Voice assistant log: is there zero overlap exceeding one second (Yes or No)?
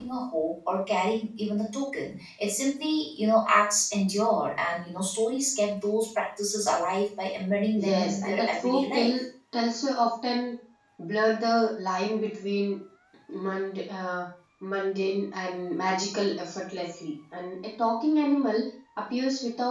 No